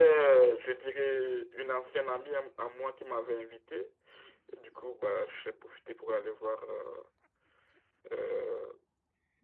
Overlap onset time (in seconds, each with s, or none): none